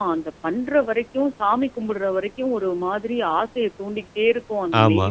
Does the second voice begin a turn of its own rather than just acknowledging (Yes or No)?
No